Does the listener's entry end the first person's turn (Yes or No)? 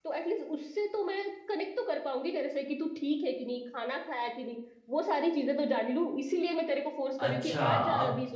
Yes